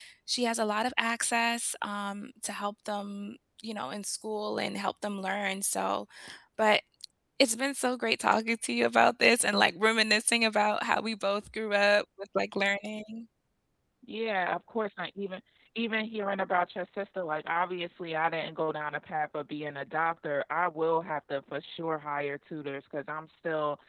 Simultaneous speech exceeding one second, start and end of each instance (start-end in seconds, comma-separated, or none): none